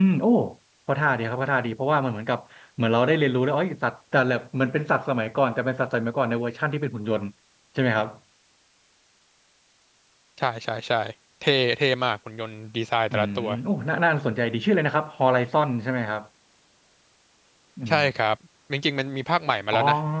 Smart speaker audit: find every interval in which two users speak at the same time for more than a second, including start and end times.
none

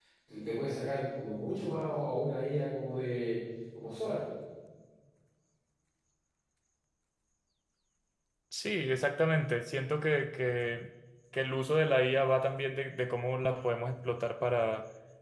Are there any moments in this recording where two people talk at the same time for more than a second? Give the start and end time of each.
none

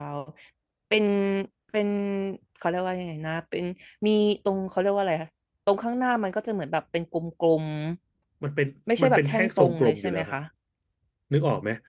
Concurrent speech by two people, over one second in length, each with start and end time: 9.0-10.3

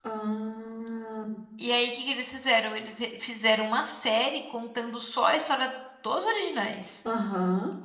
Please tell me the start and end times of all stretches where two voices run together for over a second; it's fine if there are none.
none

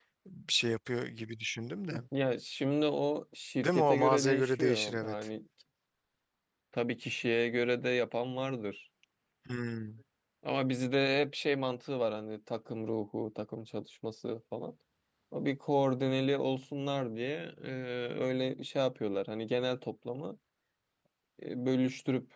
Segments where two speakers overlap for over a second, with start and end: 3.6-5.1

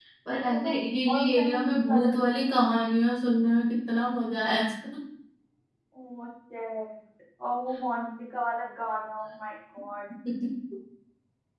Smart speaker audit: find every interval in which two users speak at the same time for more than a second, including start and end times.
1.1-2.7

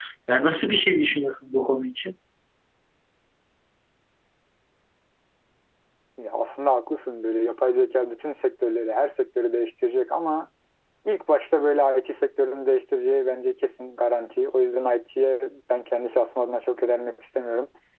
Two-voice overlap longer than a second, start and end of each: none

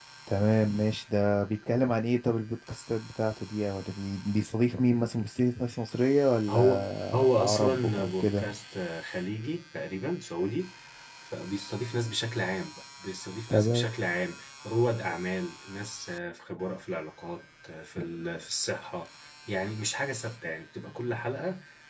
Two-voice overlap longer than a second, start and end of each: 6.5-8.5

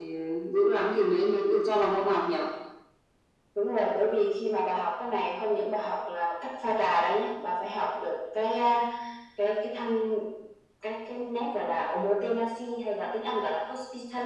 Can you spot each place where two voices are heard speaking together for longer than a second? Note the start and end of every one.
none

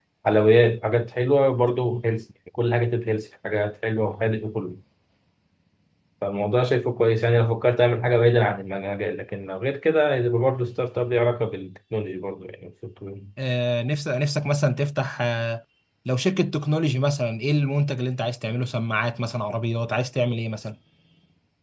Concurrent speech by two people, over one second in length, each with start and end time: none

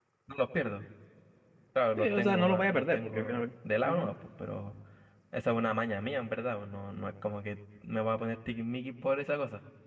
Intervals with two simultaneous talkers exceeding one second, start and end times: 2.0-3.5

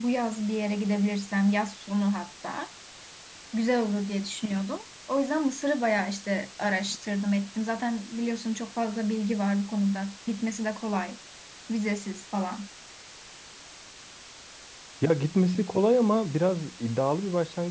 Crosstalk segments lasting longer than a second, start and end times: none

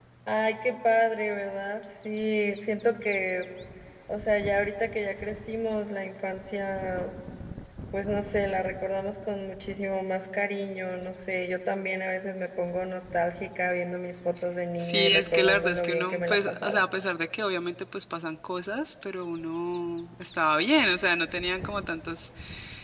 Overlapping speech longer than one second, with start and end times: 14.8-16.8

